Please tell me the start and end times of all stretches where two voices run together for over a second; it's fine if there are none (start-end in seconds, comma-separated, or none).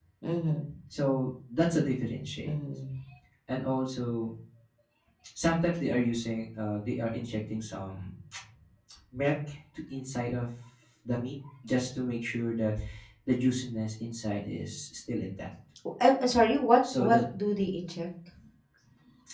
none